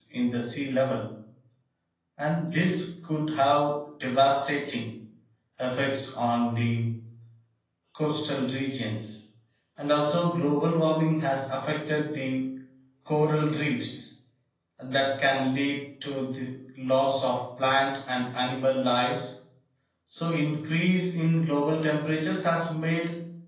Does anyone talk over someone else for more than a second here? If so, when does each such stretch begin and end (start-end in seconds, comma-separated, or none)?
none